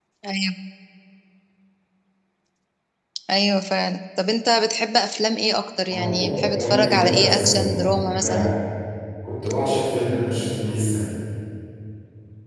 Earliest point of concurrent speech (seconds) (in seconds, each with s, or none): 5.9 s